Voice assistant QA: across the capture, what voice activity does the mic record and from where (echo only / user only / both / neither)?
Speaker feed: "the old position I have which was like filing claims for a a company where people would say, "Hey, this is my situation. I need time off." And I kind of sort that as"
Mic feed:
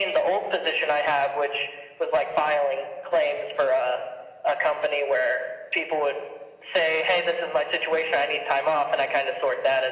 echo only